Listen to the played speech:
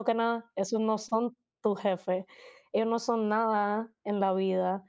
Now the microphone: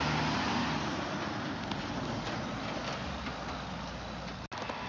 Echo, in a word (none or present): none